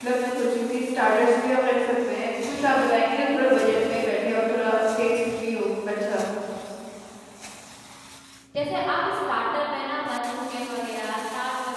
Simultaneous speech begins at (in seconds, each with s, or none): none